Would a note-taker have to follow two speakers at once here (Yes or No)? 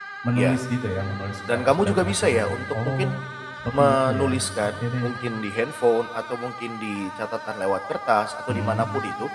Yes